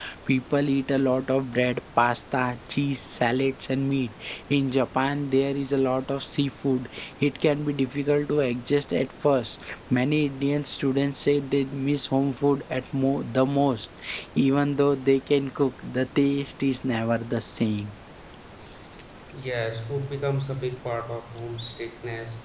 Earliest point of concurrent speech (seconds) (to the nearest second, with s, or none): none